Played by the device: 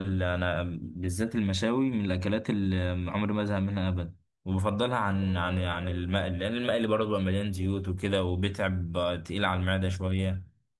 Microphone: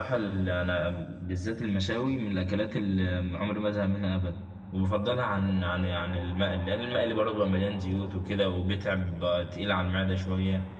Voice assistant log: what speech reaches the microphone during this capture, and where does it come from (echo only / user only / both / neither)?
echo only